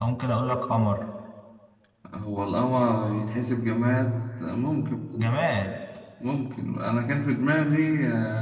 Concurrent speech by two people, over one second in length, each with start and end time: none

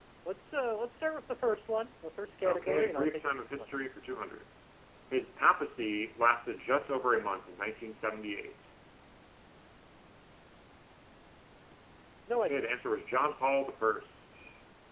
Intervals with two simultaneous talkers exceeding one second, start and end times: 2.4-3.7

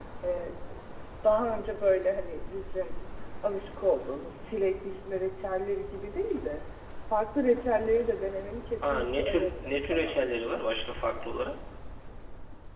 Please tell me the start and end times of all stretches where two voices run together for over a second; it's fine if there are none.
8.9-10.2

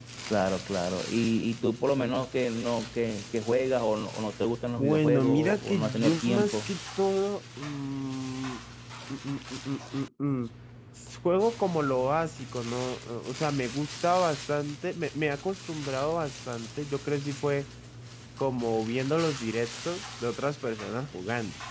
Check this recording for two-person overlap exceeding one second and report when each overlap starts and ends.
4.8-6.7

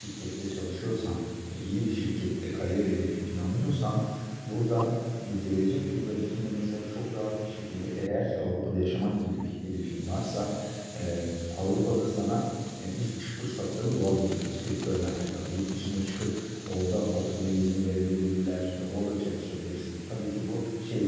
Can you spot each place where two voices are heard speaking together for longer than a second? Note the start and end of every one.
none

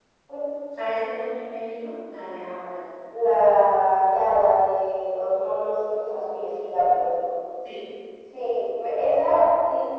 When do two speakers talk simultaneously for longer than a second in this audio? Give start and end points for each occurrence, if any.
none

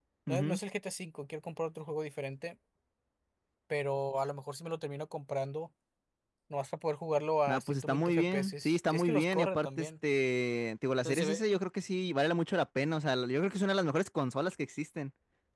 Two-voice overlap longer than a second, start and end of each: 7.5-9.9

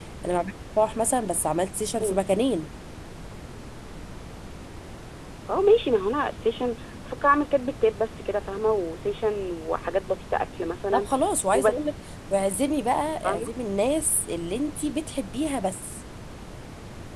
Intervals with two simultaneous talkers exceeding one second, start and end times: none

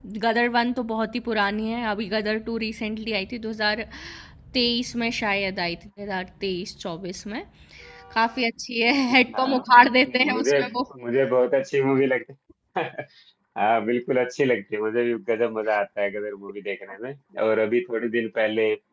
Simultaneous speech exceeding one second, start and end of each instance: none

